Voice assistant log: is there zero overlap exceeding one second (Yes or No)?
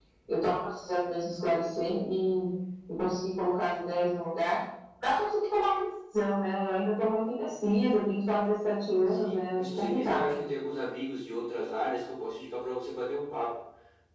No